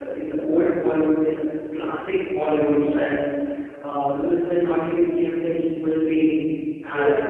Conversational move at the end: taking over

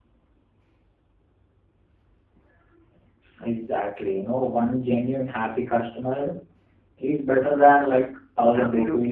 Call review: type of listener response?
taking over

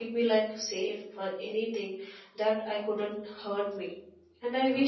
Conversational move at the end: listening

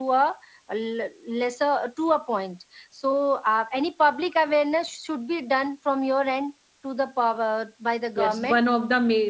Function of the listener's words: taking over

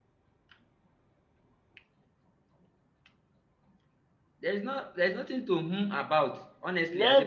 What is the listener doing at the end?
taking over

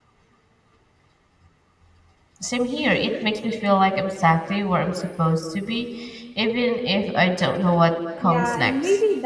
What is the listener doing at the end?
taking over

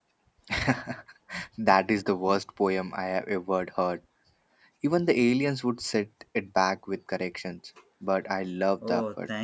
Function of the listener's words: taking over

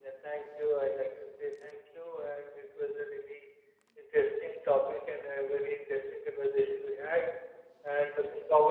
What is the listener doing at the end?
listening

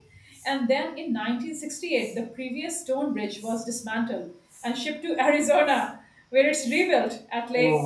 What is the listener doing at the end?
taking over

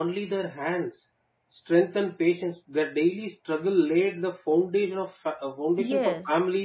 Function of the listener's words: listening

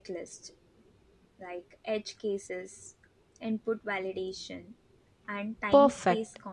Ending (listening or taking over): taking over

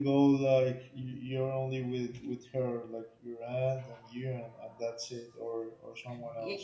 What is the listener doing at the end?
taking over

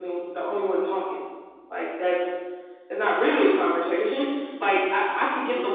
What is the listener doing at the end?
listening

